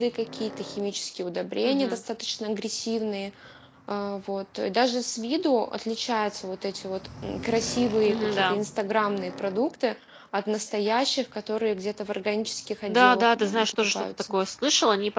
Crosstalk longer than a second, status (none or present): present